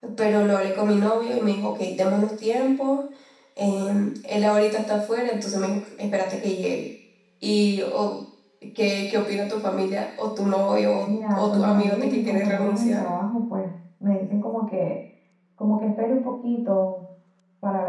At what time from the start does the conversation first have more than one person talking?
11.1 s

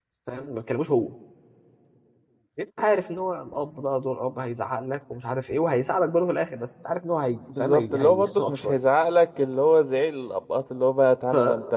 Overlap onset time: 7.6 s

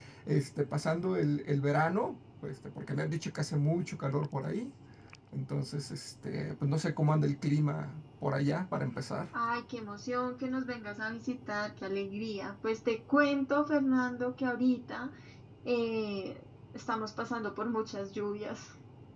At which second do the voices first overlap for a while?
none

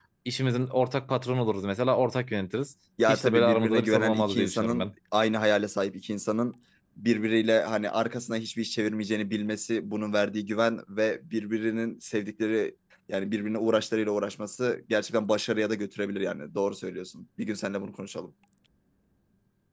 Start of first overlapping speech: 3.0 s

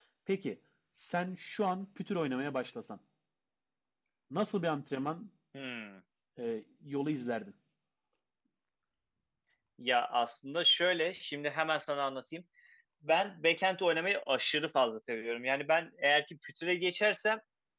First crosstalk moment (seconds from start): none

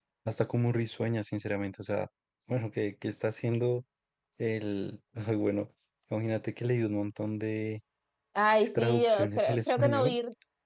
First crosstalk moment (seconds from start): 8.8 s

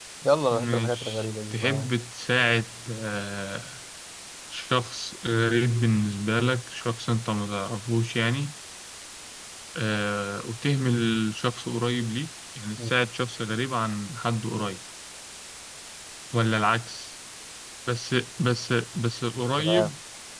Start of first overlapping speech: 0.5 s

